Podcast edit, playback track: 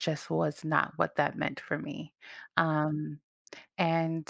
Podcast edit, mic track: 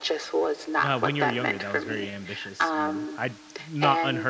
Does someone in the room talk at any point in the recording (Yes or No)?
Yes